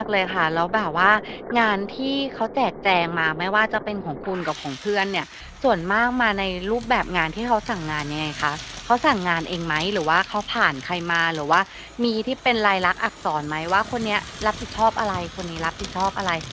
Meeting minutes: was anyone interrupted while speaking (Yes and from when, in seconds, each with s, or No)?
No